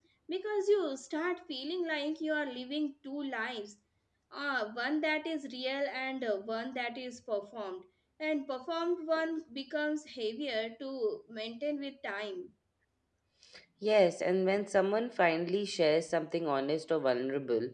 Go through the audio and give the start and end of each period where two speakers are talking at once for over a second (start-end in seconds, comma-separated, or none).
none